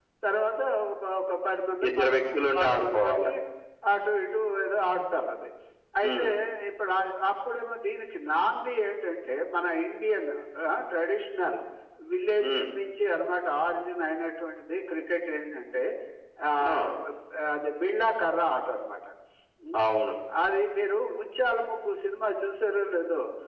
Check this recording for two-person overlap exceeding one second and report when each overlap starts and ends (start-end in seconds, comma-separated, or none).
1.9-3.2